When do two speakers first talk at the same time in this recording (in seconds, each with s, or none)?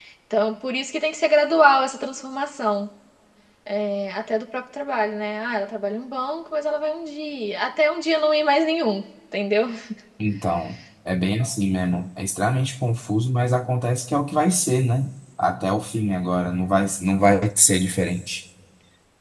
none